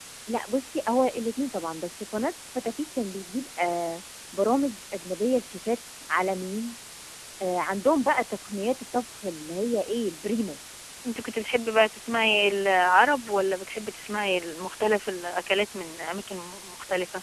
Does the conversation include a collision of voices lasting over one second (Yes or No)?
No